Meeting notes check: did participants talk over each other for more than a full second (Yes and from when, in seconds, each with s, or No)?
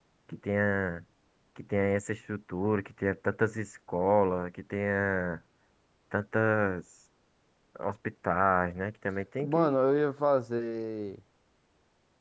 No